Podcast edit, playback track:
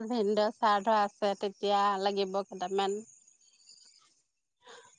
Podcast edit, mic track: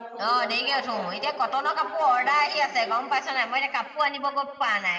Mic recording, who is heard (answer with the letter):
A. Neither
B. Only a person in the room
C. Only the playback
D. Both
D